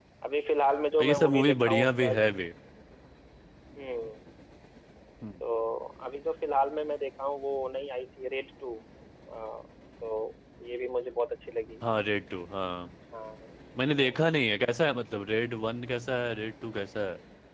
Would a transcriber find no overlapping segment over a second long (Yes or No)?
No